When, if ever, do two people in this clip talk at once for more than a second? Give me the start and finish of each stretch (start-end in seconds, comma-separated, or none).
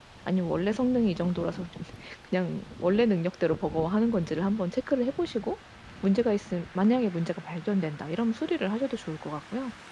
none